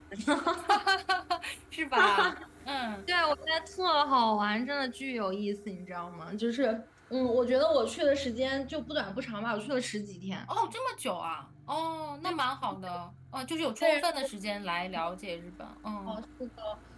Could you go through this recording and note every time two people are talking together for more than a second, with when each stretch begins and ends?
none

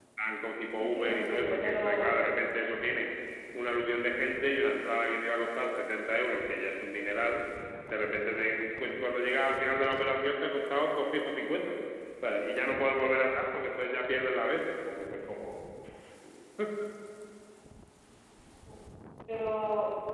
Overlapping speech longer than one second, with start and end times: 0.7-2.1

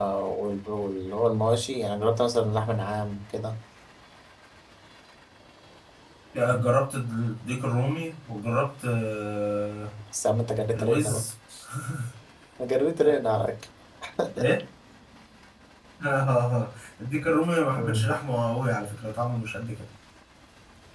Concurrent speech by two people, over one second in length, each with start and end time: none

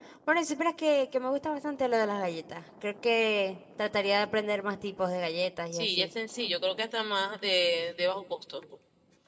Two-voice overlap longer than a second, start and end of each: none

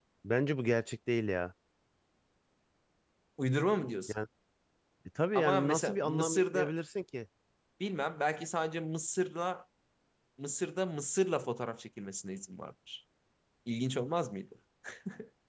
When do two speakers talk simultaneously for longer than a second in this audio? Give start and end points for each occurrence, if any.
5.3-6.7

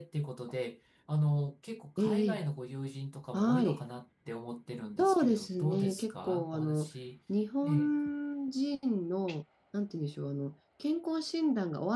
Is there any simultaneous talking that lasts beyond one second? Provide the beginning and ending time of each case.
5.0-6.9

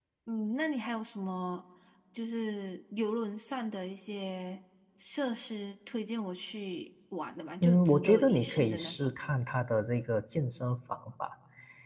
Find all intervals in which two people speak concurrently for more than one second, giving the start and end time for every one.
7.6-9.1

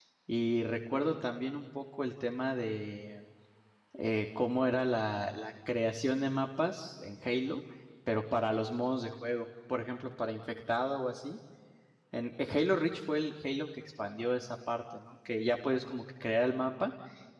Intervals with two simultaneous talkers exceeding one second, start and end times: none

